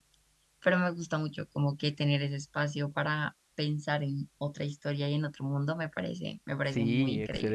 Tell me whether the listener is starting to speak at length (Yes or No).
Yes